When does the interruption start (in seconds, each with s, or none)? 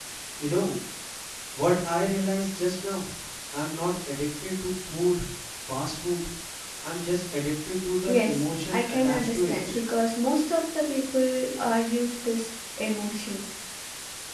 8.1 s